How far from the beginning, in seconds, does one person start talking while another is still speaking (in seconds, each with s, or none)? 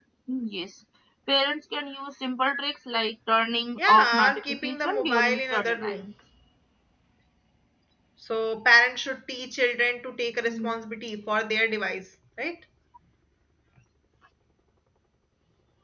3.8 s